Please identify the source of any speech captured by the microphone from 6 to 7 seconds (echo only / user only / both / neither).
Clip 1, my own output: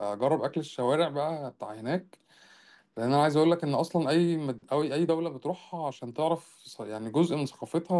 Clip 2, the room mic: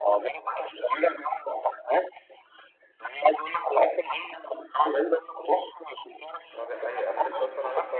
both